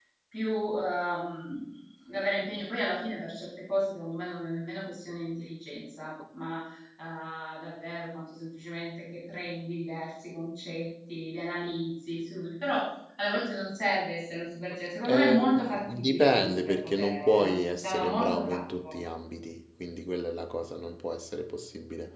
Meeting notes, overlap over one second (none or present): present